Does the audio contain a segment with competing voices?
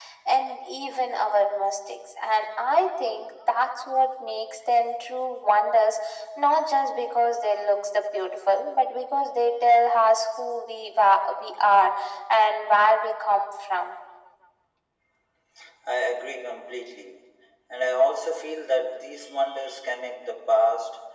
No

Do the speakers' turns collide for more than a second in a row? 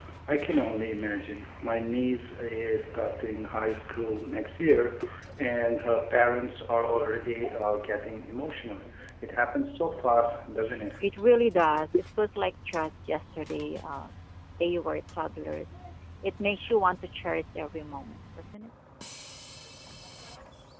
No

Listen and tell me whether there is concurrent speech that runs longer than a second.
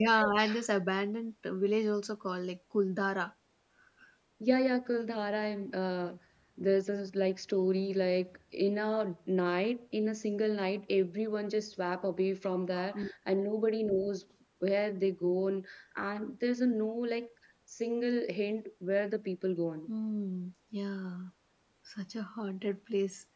No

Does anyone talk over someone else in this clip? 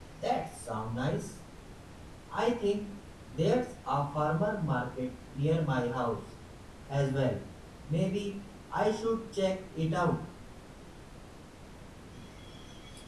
No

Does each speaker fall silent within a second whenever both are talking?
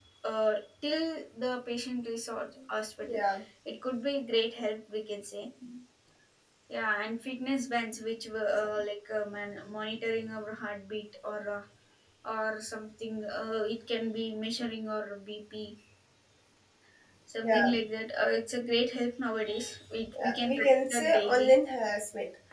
No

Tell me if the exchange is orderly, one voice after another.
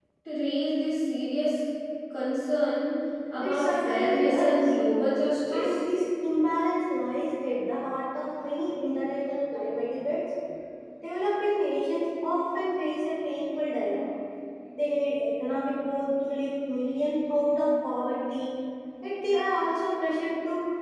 No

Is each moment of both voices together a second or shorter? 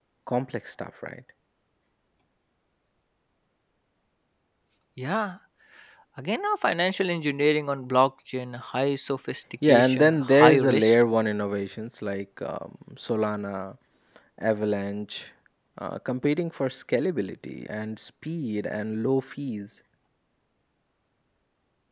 No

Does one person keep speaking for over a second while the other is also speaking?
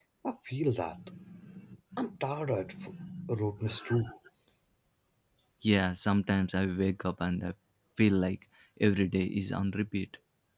No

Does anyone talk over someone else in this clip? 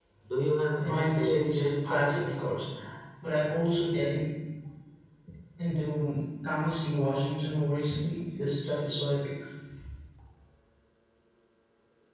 Yes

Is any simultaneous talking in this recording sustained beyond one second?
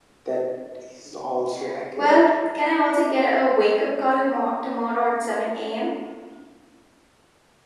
No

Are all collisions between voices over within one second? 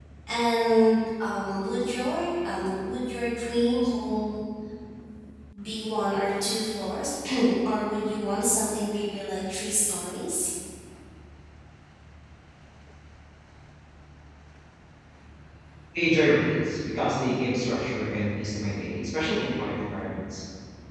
Yes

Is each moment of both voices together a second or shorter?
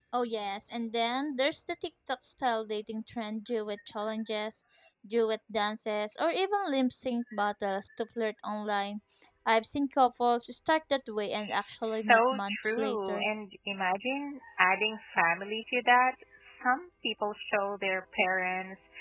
No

